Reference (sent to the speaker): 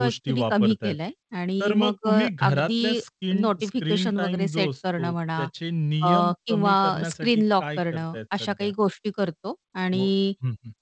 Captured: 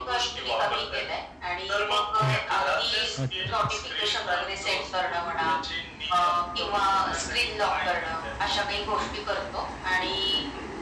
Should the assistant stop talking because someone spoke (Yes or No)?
Yes